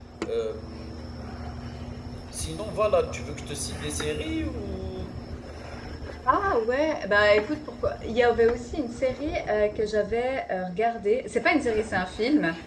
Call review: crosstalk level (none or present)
none